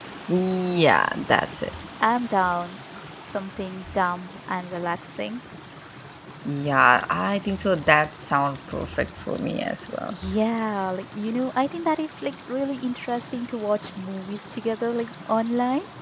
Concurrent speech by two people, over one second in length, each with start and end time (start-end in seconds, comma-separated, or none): none